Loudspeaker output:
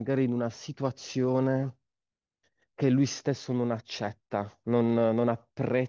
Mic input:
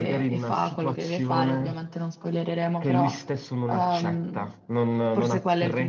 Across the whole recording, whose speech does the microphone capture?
both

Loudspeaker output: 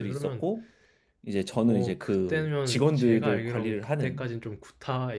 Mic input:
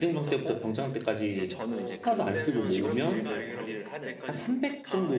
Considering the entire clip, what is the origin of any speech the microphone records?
both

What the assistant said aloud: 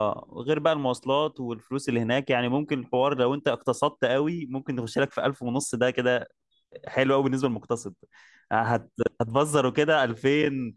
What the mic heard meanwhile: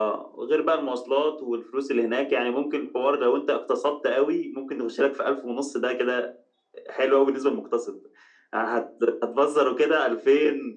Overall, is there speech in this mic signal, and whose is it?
echo only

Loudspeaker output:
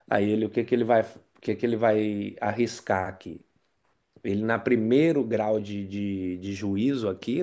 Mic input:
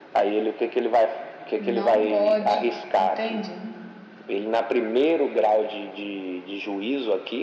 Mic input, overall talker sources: both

